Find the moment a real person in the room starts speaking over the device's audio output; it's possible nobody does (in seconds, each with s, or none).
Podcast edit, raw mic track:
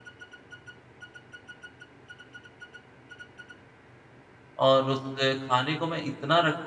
4.7 s